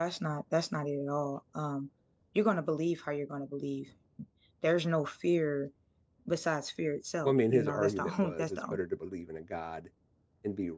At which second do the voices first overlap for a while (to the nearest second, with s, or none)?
7 s